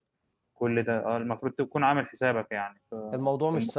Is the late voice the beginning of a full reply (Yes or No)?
Yes